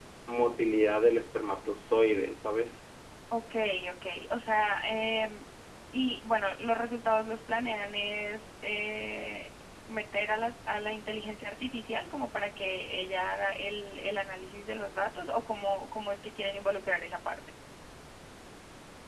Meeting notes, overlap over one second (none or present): none